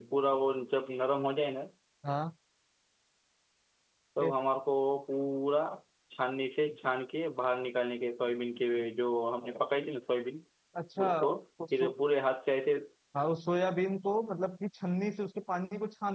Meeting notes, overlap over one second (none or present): none